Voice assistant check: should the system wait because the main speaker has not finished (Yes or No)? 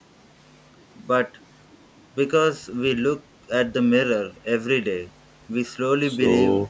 No